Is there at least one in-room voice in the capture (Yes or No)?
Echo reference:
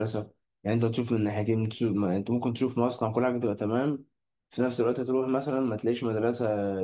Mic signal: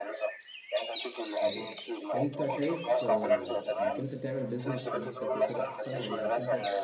Yes